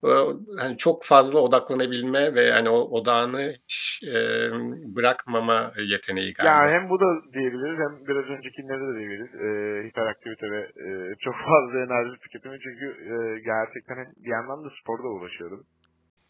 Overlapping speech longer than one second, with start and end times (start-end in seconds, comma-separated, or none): none